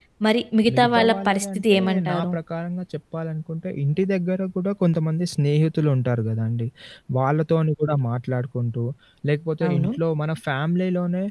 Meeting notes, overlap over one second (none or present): present